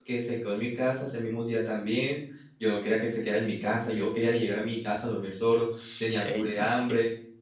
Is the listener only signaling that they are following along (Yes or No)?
No